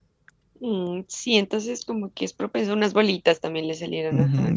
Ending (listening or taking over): taking over